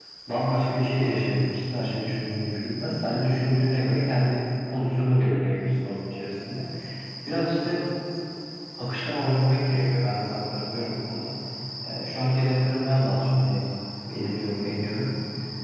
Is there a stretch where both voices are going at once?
No

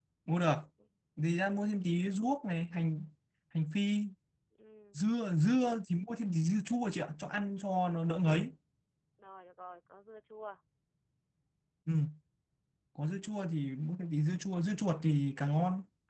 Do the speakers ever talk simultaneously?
No

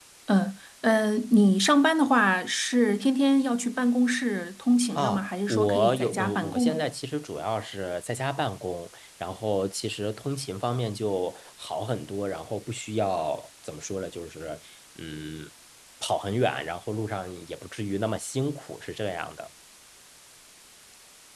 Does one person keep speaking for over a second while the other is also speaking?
Yes, from 5.0 s

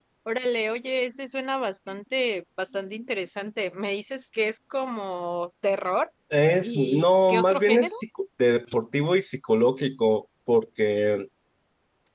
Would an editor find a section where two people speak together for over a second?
Yes, from 6.6 s

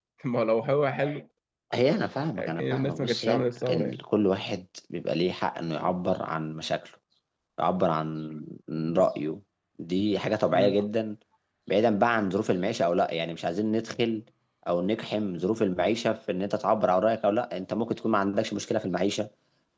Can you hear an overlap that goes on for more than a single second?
Yes, from 2.4 s

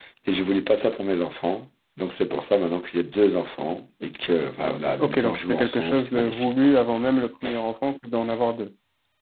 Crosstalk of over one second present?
Yes, from 5.0 s

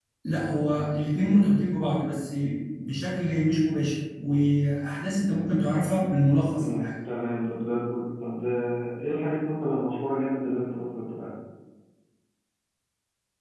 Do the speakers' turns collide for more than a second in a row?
No

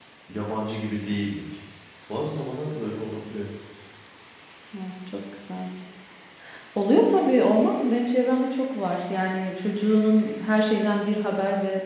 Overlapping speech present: No

